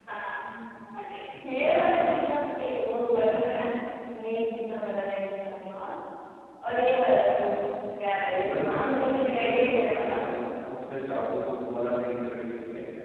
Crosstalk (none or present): present